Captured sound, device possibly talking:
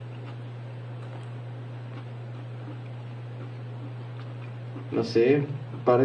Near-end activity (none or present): present